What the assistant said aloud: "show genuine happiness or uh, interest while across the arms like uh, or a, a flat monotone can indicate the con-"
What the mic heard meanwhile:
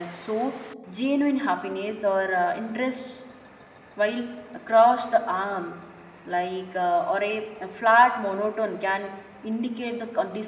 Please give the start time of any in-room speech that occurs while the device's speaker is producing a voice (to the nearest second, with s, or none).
none